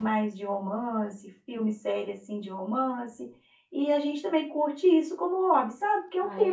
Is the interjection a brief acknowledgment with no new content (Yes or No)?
No